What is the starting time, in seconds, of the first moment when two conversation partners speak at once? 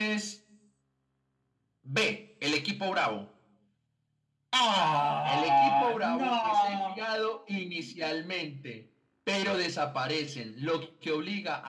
5.2 s

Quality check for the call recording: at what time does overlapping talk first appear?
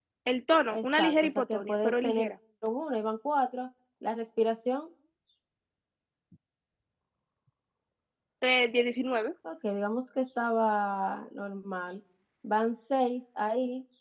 0.7 s

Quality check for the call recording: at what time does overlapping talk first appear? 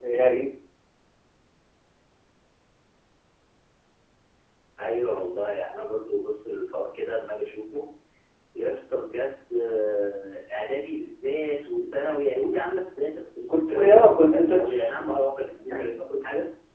13.5 s

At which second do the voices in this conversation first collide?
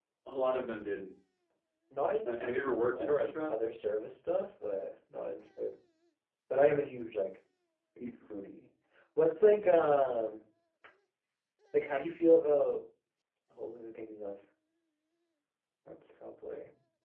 2.2 s

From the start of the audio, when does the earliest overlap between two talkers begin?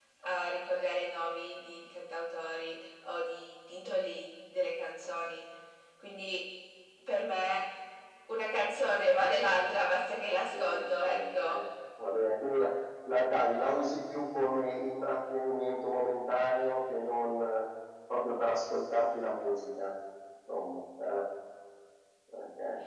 10.3 s

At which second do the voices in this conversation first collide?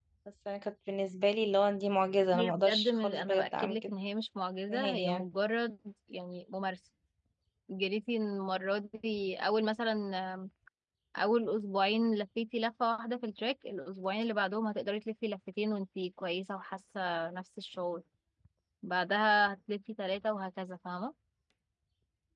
2.4 s

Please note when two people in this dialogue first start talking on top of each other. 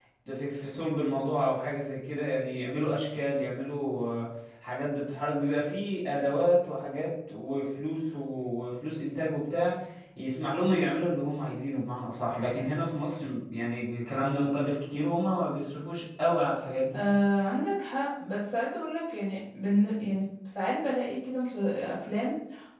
none

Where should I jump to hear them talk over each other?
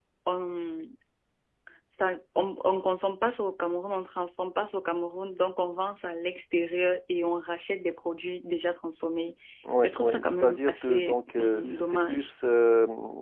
9.8 s

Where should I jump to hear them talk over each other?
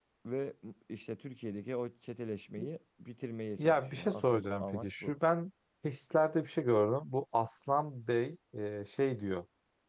3.6 s

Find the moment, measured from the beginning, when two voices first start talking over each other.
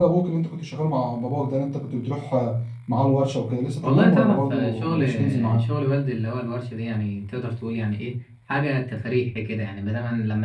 3.8 s

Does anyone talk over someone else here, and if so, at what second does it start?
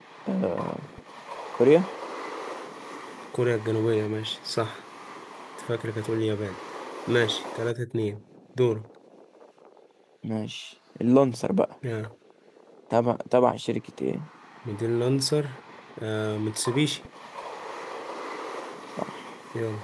none

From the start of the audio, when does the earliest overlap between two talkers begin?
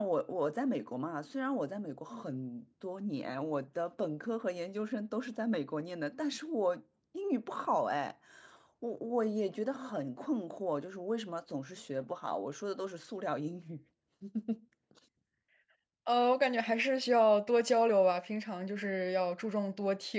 none

